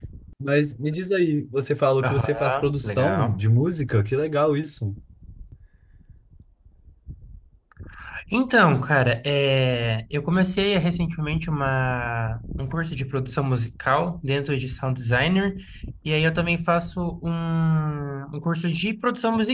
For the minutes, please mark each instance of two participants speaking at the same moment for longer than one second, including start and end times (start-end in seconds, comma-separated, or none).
2.0-3.4